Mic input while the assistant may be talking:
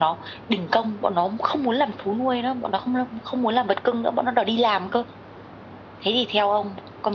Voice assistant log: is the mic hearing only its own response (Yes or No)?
Yes